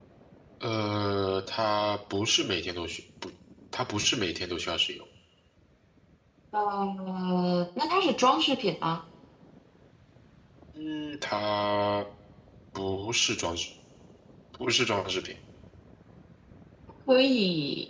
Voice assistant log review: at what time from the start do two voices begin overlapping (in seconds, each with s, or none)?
none